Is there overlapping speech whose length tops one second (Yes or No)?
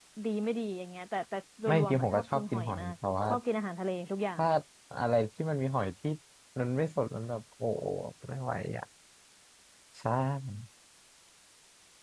Yes